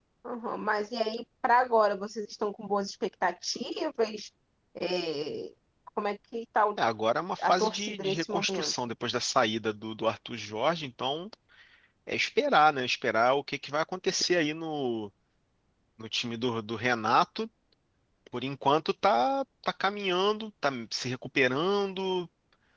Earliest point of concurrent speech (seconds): 7 s

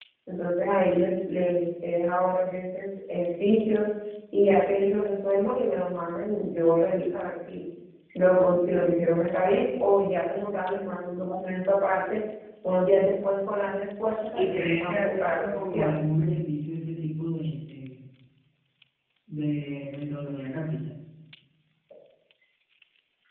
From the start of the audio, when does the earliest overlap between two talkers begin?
14 s

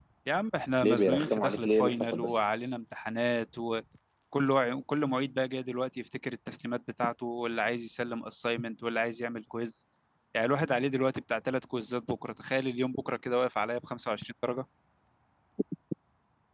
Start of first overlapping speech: 1 s

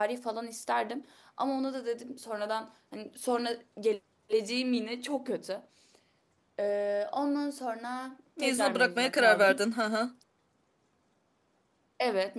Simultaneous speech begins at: 8 s

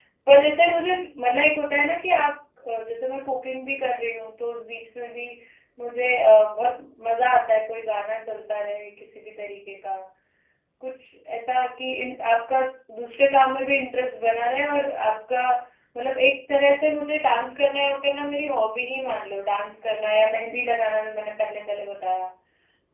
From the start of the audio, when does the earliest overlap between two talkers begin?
none

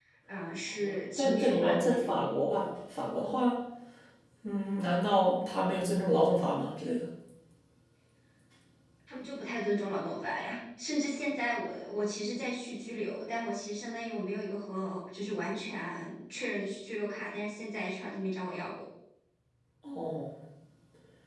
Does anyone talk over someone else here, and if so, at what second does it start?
1 s

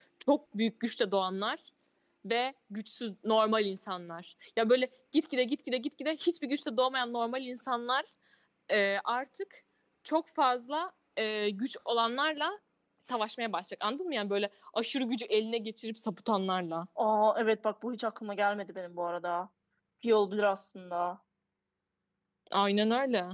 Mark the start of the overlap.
none

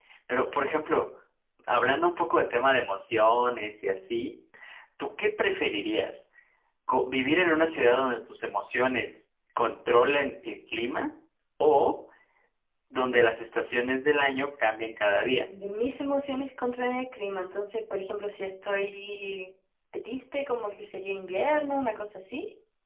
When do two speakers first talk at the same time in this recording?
none

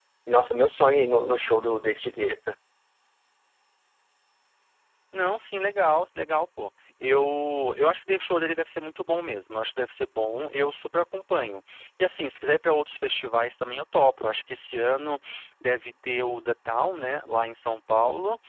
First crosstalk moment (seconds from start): none

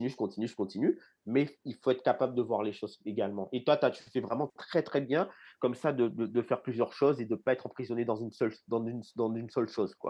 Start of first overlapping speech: none

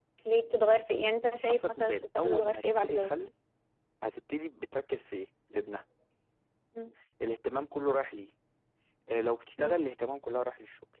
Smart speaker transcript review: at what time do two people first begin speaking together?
1 s

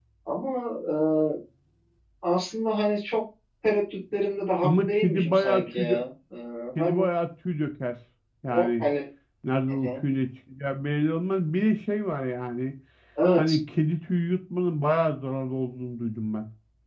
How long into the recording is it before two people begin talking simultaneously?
5 s

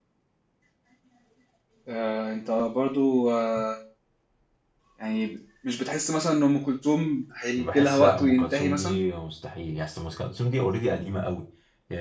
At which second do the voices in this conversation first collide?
8 s

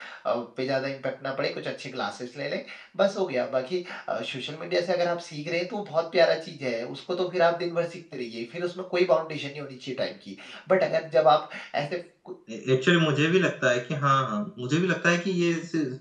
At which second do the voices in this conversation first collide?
none

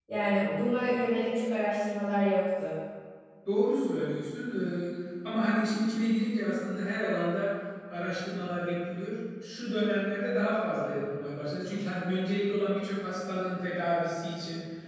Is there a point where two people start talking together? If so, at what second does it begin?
none

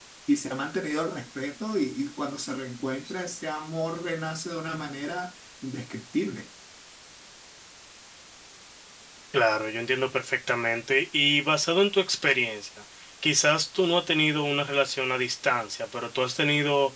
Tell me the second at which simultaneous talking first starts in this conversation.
none

